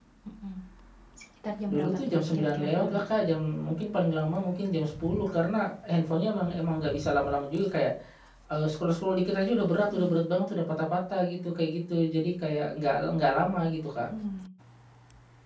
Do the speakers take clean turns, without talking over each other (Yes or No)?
No